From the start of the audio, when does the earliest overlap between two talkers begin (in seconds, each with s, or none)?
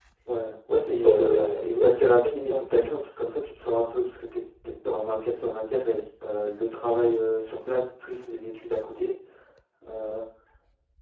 0.9 s